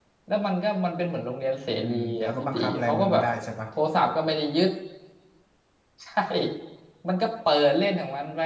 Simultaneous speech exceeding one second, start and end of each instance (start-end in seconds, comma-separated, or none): 1.8-3.2